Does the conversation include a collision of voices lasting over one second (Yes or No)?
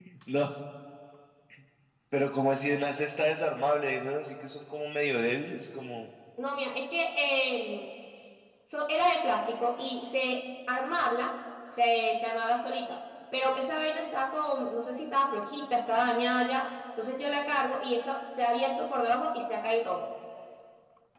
No